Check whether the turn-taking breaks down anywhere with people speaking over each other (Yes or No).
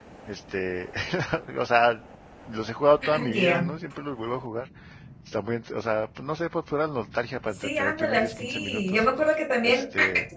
Yes